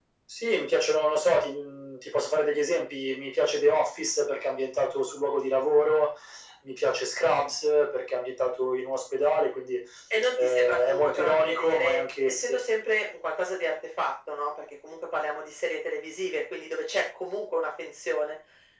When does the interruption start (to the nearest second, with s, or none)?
10 s